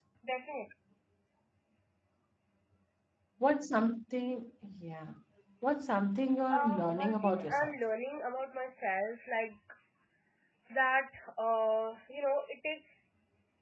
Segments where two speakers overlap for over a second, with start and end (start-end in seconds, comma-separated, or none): 6.5-7.8